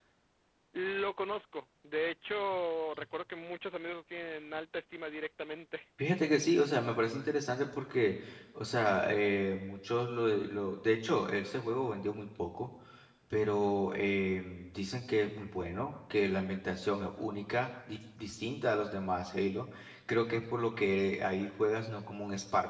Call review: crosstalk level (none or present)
none